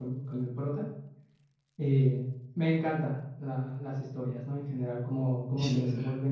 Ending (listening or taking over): listening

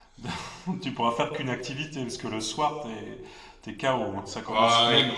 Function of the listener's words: taking over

